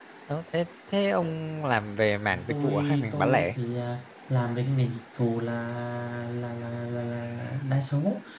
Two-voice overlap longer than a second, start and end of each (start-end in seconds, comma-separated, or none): 2.3-3.5